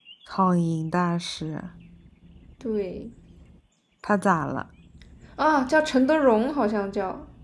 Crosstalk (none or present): none